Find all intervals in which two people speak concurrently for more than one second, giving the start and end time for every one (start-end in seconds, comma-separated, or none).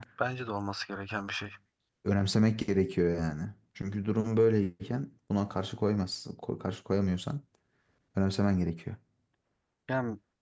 none